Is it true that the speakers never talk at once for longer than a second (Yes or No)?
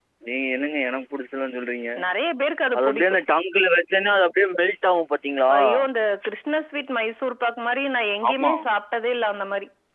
Yes